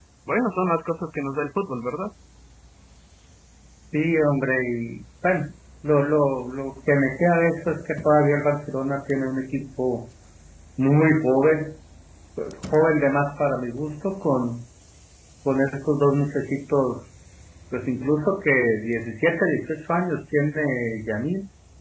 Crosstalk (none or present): none